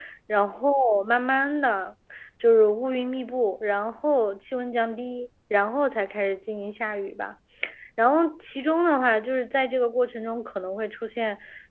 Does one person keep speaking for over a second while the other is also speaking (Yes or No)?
No